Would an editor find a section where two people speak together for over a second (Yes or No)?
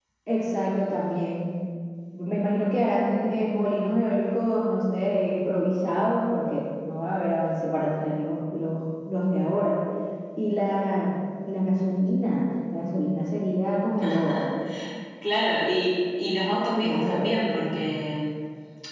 No